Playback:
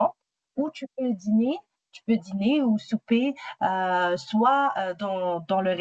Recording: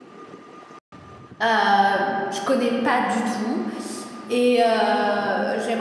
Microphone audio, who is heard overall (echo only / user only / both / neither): user only